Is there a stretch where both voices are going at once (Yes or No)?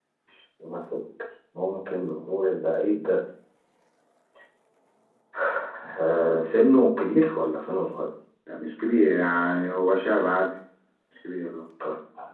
No